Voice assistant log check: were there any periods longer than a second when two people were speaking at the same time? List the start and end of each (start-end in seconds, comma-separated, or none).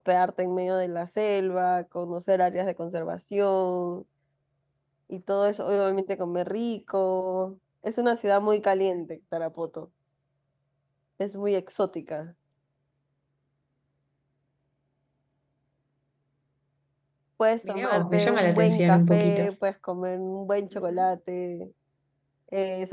17.7-19.5